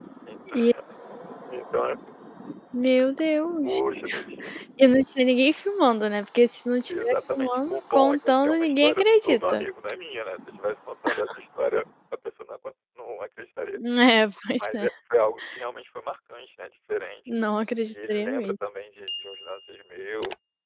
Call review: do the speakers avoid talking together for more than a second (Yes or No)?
No